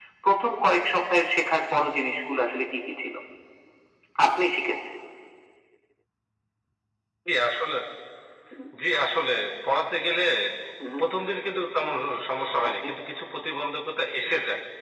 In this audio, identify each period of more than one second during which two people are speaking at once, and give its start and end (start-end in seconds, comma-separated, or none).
none